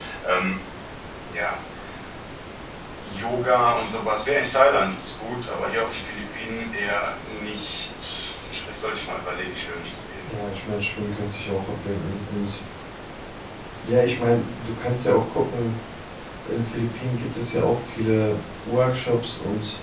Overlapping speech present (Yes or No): No